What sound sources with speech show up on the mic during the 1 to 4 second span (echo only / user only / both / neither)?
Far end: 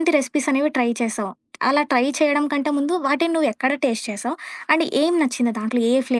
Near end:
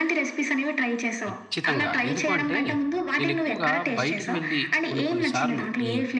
both